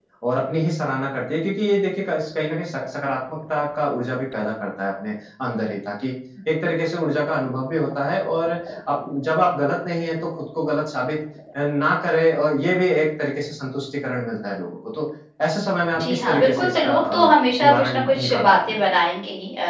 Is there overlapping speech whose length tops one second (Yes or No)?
Yes